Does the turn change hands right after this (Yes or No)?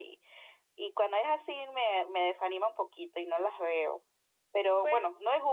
No